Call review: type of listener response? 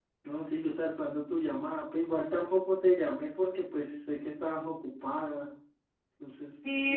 taking over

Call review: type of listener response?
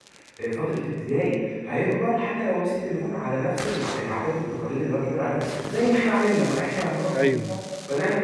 listening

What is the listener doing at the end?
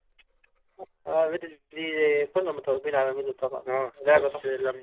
taking over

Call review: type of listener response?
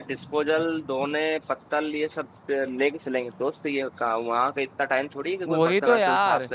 taking over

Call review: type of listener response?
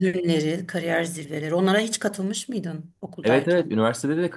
taking over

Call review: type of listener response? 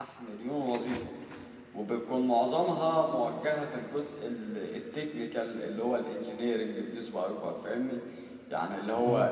listening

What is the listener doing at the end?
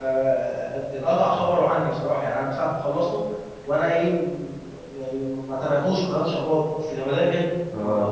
taking over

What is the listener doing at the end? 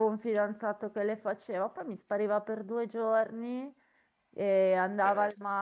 listening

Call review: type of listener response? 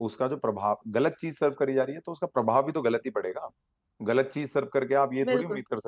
listening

